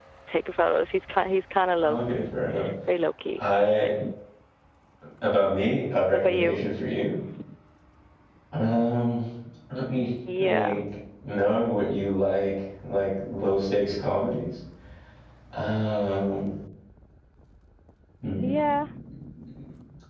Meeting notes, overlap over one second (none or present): none